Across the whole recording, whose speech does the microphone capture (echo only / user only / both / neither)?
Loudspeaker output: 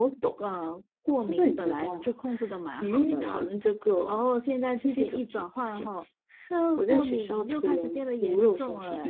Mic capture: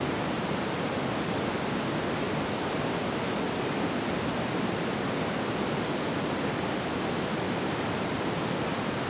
neither